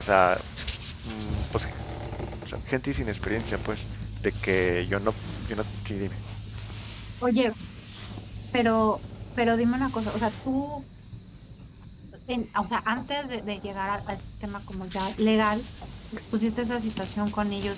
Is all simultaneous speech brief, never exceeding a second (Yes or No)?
Yes